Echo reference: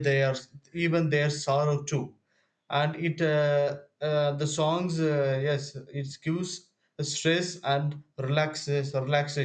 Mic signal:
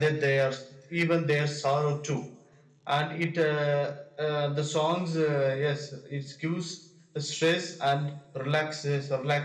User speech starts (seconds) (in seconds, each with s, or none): none